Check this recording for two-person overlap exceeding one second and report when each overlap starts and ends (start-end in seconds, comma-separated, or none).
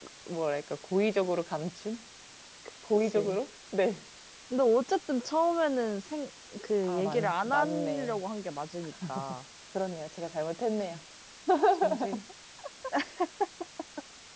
6.8-8.2